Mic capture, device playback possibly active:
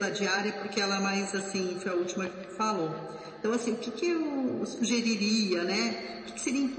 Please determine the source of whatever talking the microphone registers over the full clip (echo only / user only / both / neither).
echo only